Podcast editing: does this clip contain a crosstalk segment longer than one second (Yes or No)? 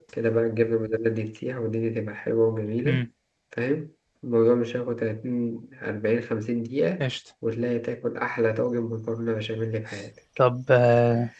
No